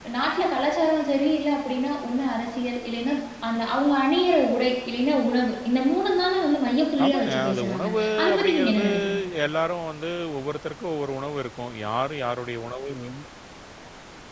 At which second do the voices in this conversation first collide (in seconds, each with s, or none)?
6.9 s